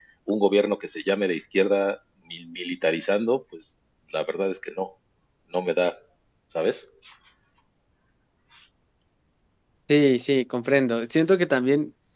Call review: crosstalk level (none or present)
none